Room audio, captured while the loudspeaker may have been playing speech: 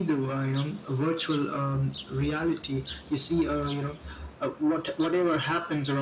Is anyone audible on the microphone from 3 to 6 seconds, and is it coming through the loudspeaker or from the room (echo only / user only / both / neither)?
echo only